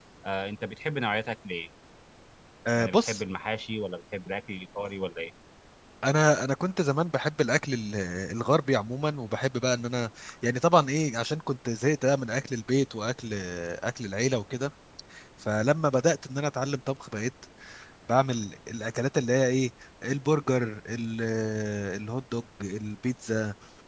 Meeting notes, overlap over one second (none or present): none